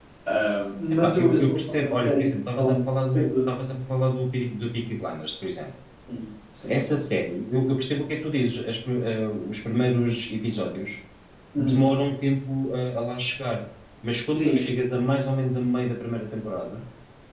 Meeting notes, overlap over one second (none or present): present